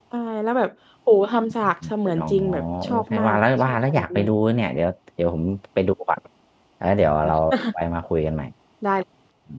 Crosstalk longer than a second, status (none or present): present